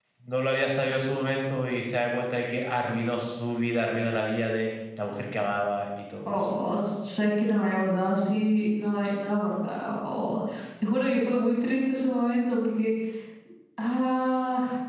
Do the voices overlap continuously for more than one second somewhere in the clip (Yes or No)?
No